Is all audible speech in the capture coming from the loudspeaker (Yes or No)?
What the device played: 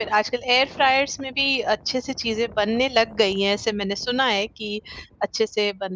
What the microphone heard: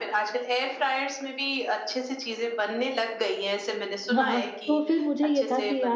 No